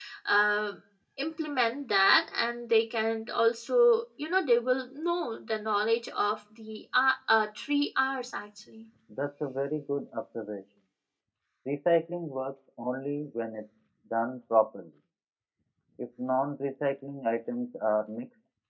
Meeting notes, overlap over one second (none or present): none